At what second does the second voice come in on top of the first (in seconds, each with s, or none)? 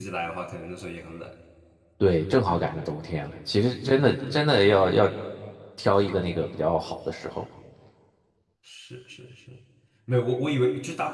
none